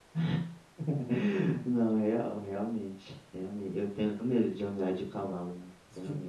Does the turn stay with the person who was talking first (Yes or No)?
No